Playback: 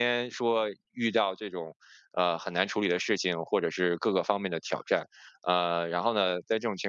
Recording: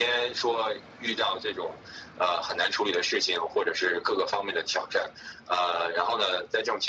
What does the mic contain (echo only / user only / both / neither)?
echo only